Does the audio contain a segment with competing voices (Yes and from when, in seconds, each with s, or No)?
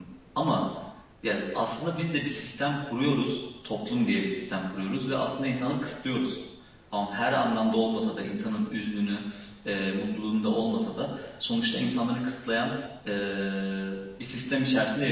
No